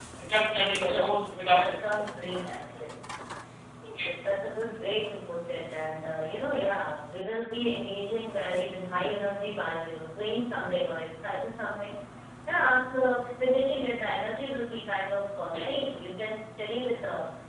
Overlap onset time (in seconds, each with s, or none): 0.9 s